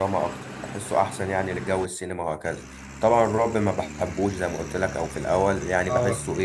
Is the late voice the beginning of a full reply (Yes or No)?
No